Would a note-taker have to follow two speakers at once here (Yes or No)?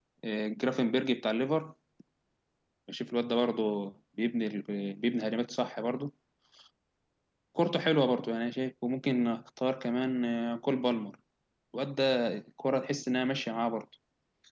No